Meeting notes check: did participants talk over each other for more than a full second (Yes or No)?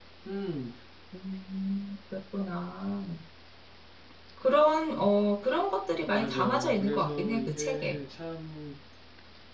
Yes